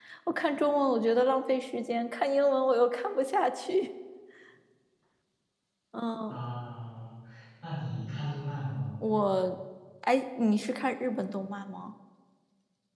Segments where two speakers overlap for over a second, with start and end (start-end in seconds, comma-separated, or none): none